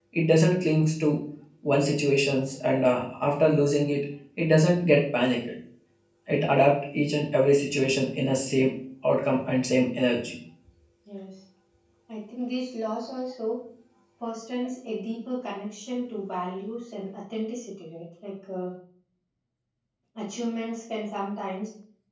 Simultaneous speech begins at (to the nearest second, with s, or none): none